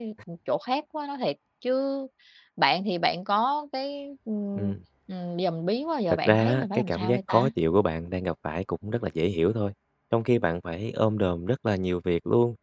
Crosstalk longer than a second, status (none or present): present